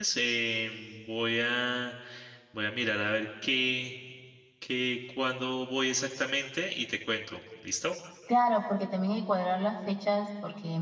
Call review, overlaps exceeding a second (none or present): none